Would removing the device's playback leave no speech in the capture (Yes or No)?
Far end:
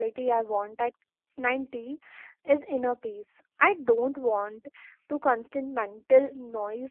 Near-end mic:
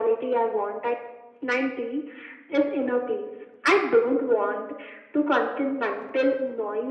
Yes